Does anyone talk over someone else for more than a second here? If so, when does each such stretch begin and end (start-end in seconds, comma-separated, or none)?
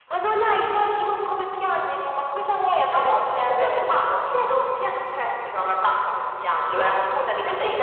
2.9-4.1